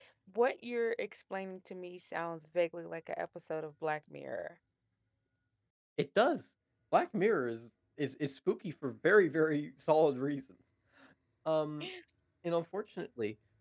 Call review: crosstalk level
none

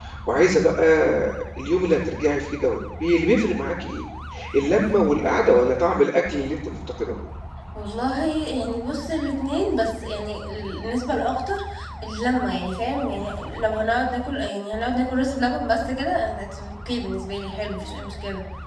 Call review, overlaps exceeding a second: none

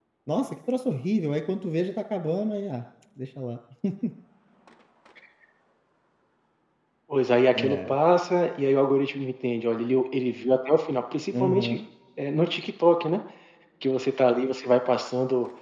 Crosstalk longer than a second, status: none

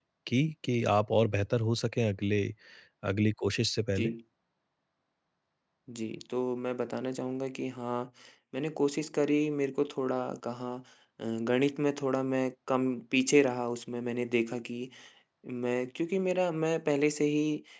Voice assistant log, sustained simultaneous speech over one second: none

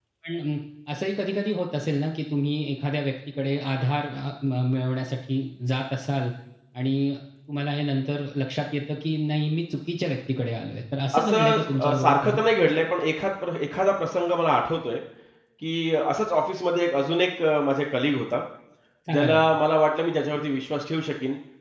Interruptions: present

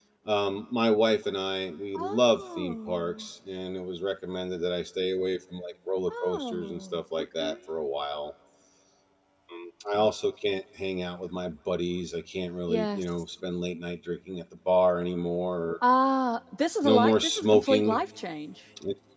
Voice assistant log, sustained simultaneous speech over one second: present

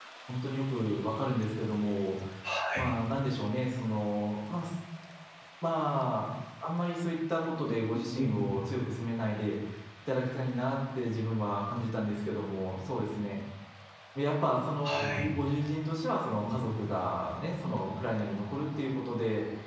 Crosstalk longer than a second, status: none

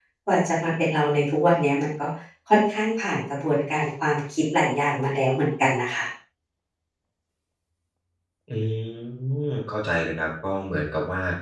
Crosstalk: none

